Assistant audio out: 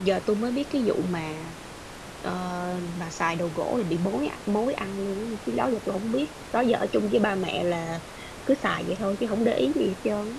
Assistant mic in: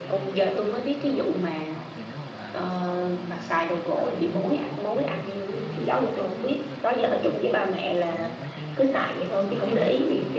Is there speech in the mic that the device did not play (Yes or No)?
Yes